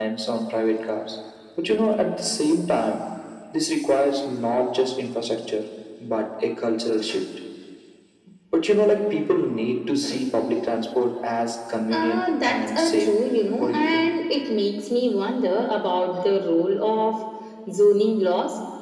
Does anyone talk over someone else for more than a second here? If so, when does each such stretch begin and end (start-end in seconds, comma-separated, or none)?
11.9-13.1